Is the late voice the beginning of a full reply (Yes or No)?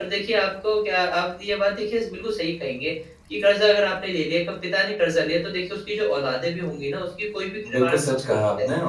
Yes